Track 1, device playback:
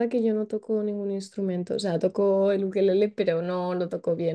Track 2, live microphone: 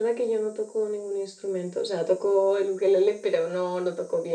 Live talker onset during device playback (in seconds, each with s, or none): none